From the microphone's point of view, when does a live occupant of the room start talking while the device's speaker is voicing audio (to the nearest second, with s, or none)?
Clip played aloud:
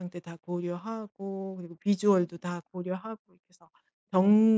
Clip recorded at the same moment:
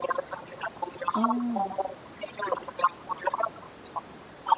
1 s